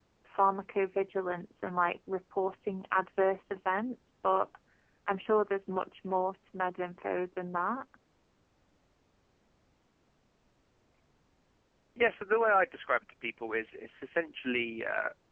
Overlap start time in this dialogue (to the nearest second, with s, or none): none